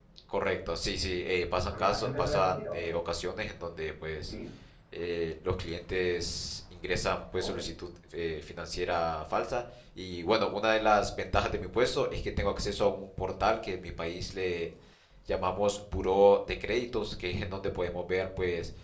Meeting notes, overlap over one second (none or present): present